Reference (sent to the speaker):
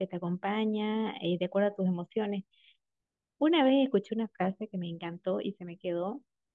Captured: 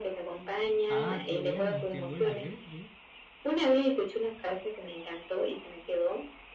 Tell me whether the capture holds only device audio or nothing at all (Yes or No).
No